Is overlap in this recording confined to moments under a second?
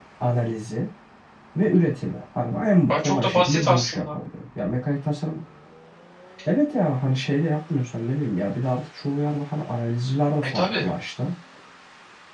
No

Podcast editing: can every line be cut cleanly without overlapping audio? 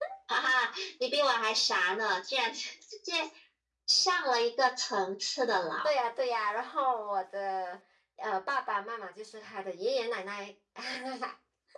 Yes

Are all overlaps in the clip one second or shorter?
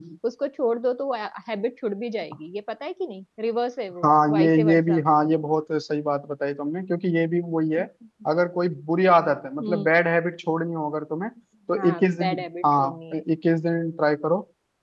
No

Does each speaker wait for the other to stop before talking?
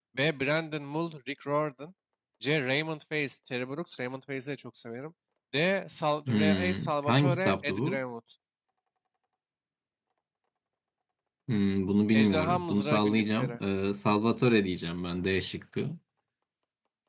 No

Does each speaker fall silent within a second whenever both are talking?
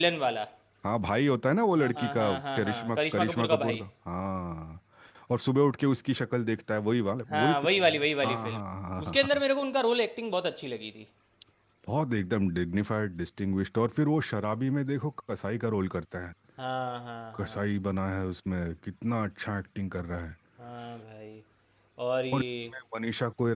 No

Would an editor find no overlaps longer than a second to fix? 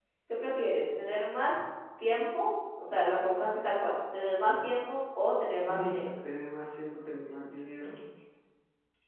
Yes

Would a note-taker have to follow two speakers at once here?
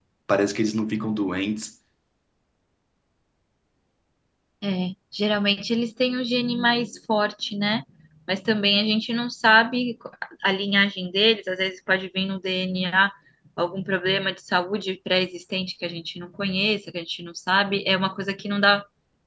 No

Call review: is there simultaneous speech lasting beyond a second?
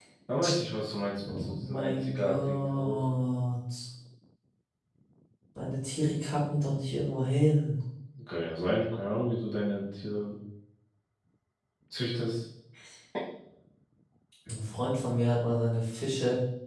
Yes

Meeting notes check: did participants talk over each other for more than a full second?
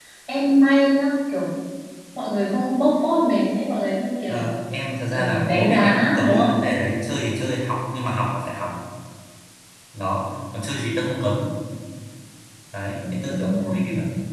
Yes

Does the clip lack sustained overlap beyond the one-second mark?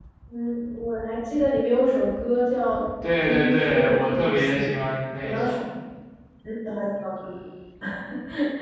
No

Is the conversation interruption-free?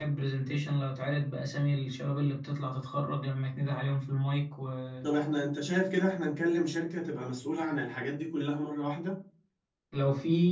Yes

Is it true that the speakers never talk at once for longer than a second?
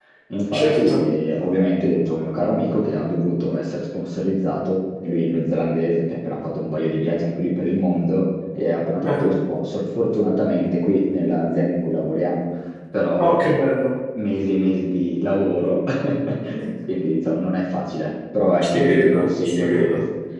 No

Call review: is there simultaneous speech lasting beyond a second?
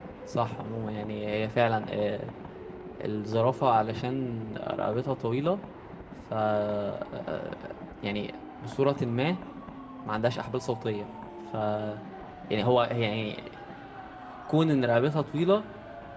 No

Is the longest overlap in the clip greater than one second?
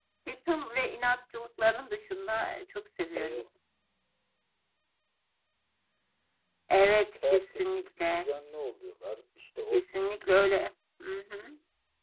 No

